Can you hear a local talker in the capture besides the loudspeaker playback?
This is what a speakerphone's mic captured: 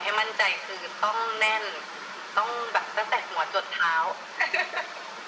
No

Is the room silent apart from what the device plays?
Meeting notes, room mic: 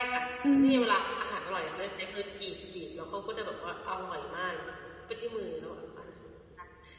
No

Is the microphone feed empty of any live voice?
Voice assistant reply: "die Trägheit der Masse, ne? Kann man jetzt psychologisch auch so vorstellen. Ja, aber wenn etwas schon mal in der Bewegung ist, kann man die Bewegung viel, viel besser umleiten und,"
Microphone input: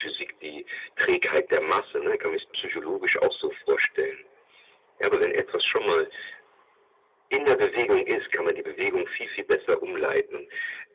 Yes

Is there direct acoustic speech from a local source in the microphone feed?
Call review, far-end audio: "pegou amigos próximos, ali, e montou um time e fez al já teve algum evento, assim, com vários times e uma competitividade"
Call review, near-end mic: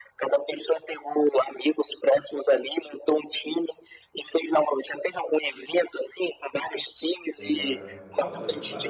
Yes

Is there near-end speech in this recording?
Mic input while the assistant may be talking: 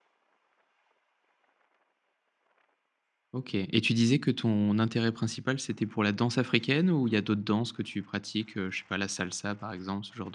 Yes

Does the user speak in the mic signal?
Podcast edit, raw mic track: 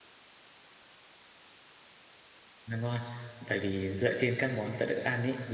Yes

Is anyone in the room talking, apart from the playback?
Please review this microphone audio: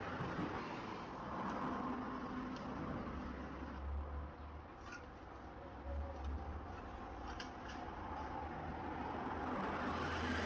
No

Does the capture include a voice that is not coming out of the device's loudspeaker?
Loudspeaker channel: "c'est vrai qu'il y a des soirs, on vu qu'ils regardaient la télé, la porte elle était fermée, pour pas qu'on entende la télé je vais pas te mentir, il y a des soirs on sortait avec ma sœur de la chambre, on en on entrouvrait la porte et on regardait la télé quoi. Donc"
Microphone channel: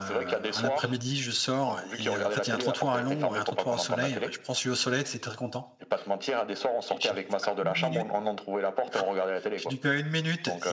Yes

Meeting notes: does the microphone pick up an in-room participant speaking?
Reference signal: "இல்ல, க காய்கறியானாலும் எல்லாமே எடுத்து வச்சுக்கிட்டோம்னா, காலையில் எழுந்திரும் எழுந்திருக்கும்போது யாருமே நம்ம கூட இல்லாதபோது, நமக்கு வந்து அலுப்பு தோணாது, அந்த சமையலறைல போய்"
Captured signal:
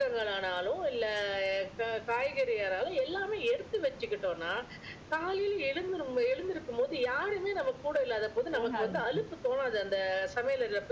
Yes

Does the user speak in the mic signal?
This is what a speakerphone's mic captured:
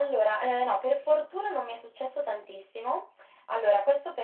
No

